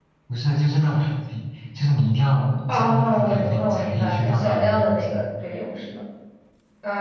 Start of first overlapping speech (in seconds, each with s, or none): 2.7 s